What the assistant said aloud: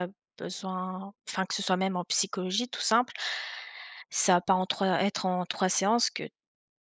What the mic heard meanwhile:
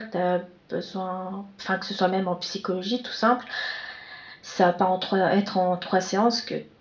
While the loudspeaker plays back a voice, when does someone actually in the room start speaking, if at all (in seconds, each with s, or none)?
none